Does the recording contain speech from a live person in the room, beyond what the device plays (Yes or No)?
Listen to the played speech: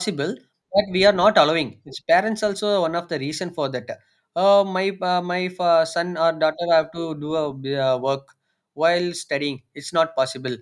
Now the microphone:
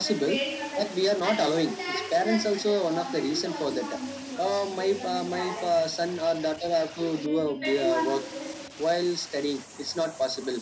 Yes